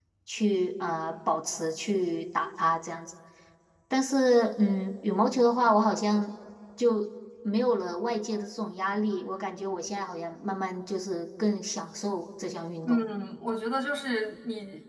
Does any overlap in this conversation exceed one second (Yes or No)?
No